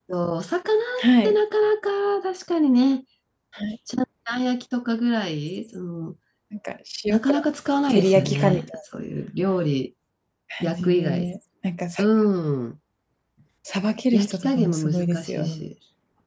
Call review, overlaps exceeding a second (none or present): present